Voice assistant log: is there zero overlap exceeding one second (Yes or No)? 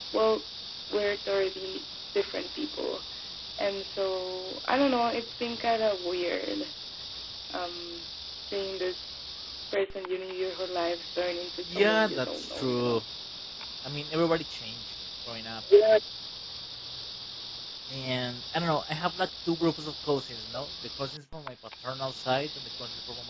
No